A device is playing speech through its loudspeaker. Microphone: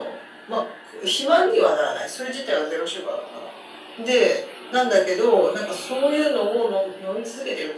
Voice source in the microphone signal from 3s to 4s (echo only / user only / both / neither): echo only